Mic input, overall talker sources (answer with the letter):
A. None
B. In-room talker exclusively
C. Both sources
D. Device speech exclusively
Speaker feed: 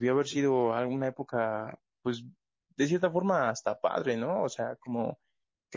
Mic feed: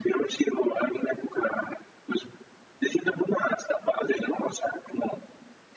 D